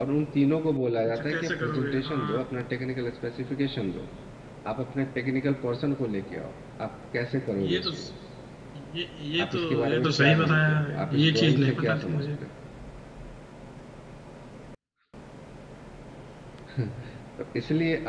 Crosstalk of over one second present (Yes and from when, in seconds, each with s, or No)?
Yes, from 1.1 s